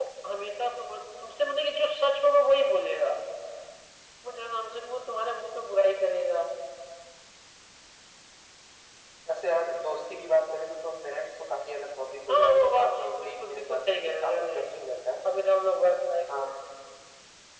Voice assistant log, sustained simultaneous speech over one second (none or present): present